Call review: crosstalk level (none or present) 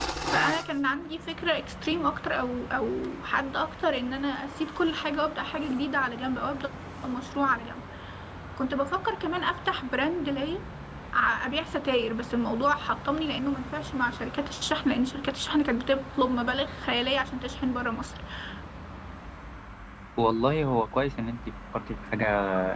none